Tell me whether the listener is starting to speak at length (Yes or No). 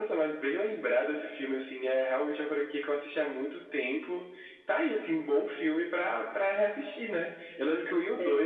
No